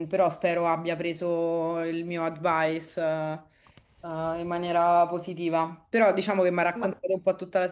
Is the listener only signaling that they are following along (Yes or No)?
Yes